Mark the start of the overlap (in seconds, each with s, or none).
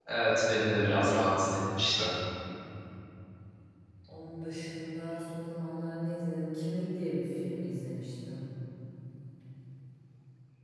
none